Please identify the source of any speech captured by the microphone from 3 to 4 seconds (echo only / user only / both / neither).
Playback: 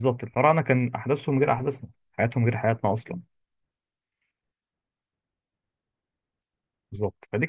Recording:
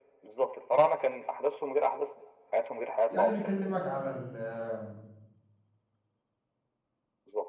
both